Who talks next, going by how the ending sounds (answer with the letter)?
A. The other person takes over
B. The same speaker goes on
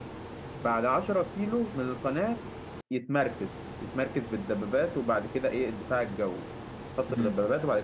B